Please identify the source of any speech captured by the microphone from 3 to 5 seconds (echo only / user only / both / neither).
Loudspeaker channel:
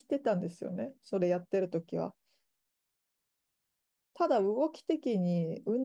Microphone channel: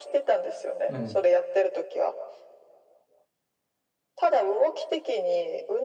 echo only